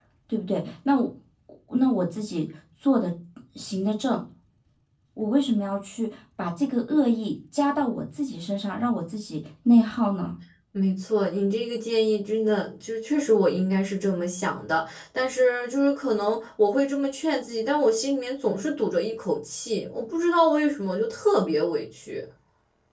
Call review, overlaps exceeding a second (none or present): none